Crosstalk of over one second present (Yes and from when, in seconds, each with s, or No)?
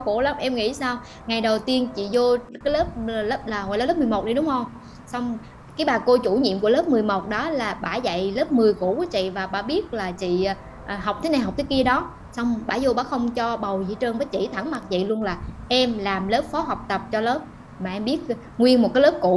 No